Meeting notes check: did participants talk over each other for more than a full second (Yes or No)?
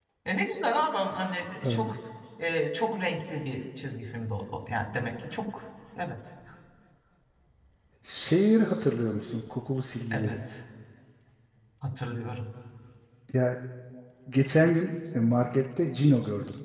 No